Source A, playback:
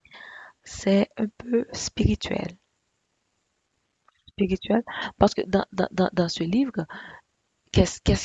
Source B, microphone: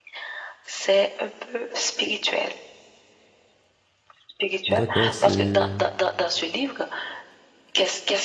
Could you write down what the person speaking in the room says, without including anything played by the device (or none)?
D'accord, c'est